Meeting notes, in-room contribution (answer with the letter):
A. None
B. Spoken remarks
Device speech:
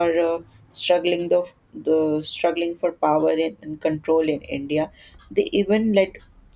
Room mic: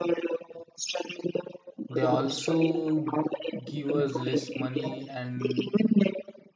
B